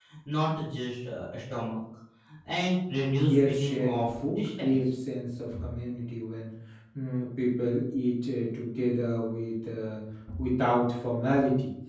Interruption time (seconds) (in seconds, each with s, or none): 2.9 s